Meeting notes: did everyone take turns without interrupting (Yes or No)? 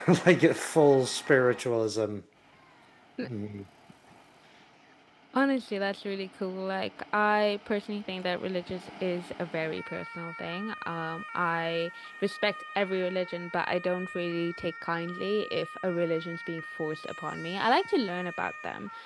Yes